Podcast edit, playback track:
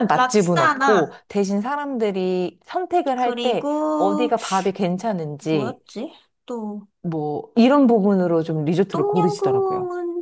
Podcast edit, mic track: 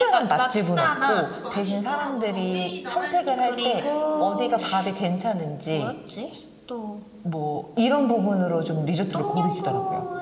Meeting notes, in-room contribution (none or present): present